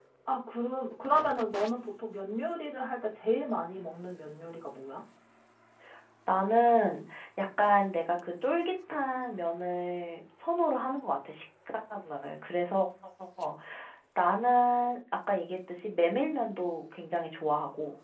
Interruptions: none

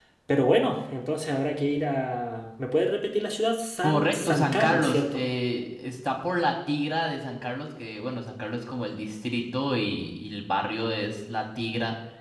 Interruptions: present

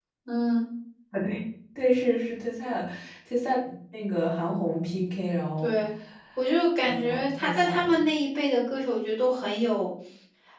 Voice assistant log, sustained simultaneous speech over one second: present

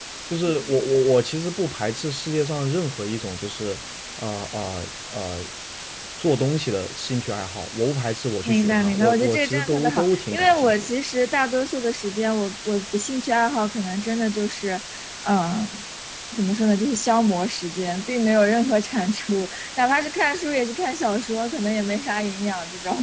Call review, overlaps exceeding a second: present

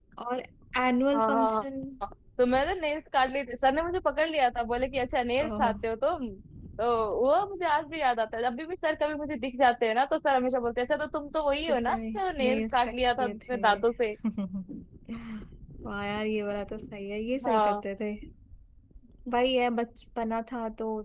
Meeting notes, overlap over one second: present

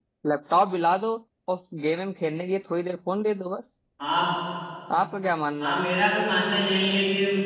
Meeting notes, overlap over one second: none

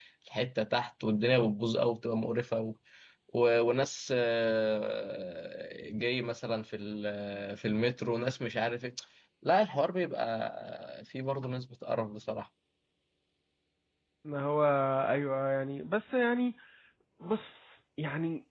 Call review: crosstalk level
none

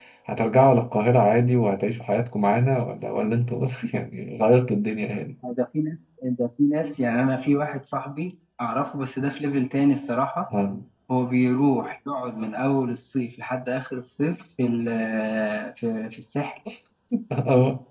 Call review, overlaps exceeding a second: none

